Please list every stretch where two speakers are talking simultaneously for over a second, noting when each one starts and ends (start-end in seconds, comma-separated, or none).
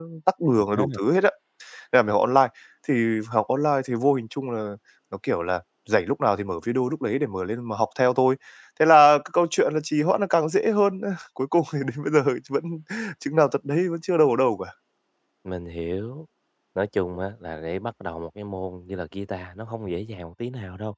none